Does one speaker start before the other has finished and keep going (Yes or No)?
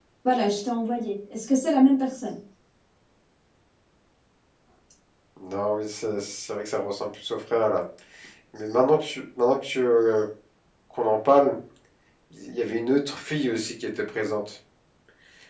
No